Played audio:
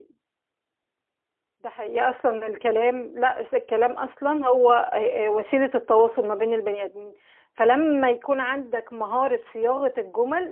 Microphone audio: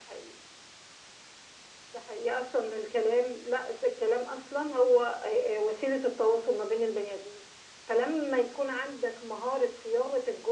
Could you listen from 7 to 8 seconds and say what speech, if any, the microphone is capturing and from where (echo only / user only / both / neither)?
echo only